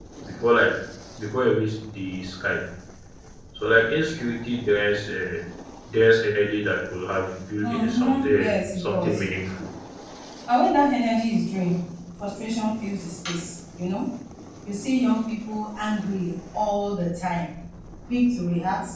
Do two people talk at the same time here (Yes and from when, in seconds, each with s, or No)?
Yes, from 7.6 s